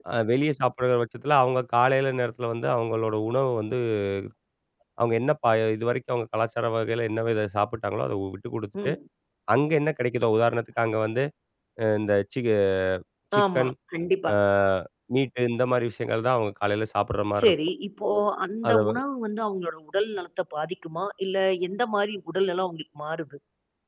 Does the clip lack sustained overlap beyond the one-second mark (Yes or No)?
Yes